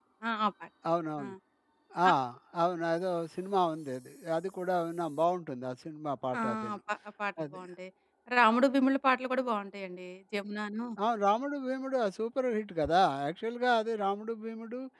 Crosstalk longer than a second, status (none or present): none